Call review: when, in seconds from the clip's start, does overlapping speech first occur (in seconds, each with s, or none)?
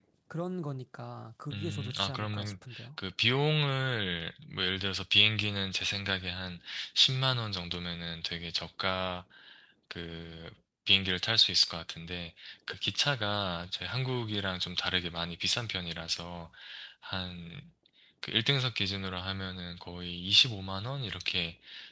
1.5 s